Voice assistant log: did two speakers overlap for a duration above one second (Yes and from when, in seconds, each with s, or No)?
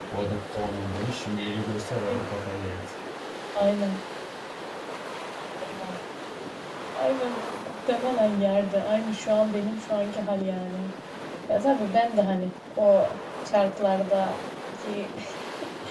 No